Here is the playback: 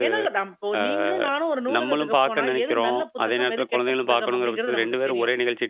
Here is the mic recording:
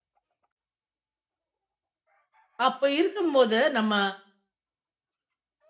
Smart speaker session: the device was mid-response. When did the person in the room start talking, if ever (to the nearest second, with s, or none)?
3 s